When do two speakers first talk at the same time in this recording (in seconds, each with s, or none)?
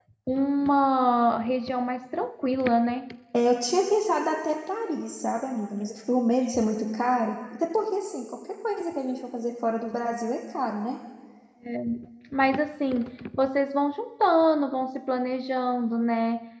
none